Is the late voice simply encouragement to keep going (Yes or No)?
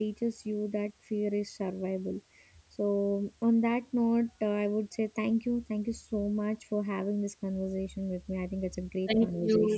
No